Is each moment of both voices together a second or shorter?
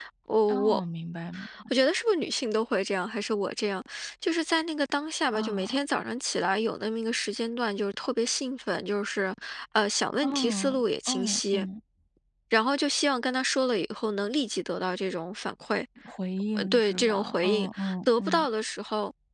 No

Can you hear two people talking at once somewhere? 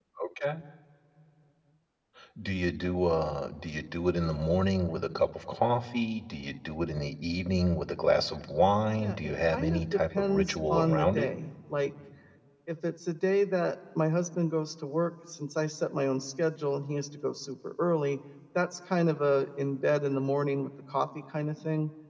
Yes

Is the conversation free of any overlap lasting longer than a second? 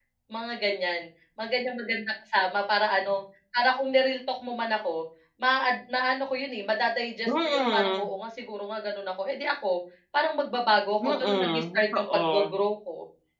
No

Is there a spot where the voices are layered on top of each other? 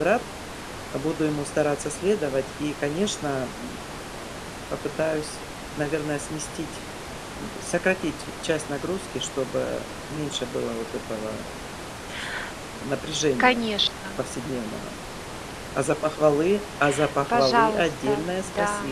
Yes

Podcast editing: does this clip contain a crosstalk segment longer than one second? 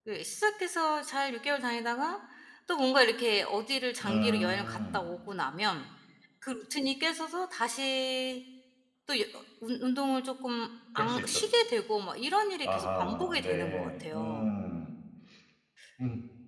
Yes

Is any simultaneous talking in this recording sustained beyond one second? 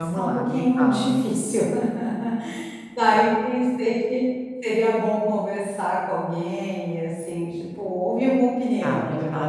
Yes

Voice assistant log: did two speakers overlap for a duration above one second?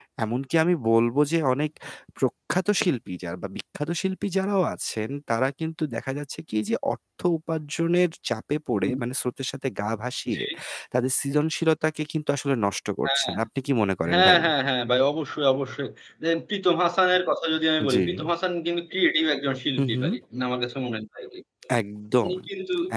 No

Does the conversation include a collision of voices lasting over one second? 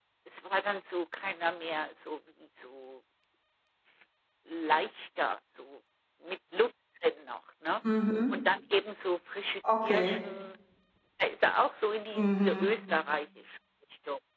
No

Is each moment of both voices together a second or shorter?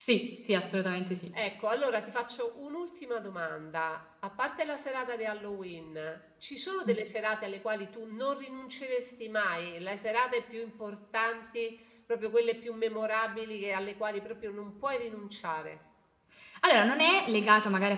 Yes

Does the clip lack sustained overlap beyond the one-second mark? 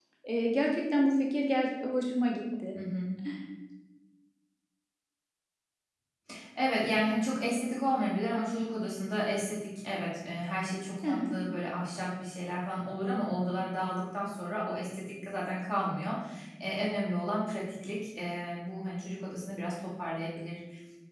Yes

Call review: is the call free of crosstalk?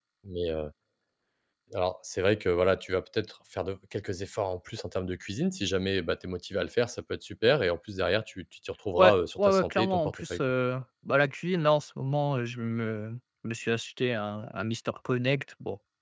No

